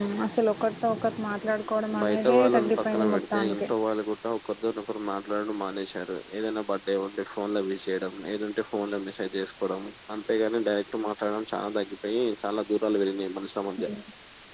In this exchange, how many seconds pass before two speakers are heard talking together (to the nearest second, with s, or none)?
2 s